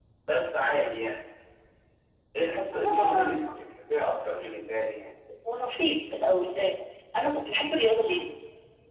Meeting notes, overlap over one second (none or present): none